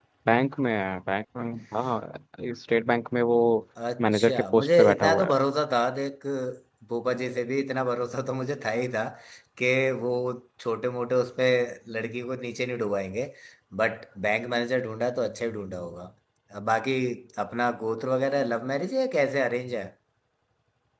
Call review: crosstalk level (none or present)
present